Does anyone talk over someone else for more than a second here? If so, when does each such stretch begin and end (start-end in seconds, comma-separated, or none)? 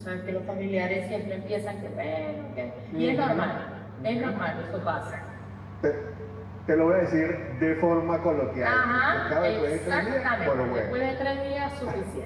8.6-11.0